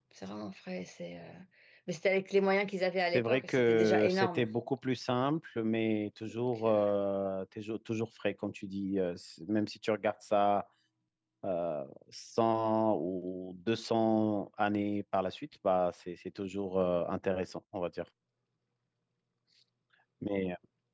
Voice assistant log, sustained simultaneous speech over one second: present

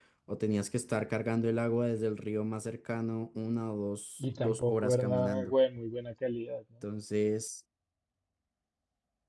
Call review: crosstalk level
present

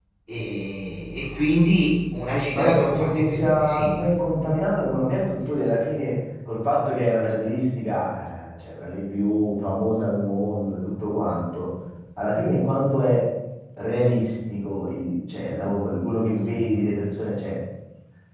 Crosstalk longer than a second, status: present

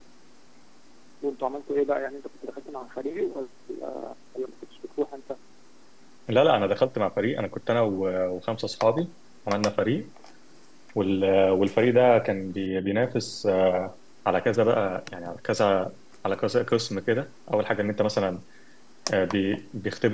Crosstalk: none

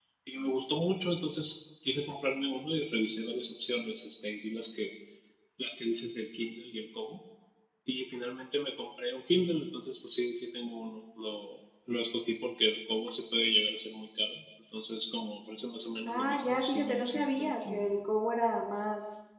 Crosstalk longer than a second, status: present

